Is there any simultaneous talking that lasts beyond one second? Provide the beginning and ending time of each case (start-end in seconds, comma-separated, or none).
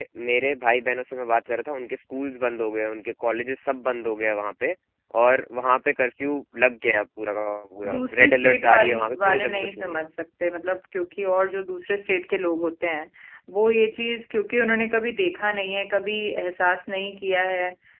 7.9-10.0